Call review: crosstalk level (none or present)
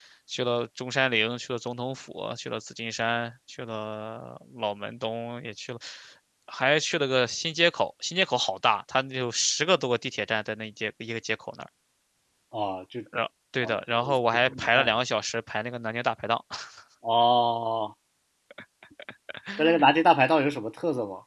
present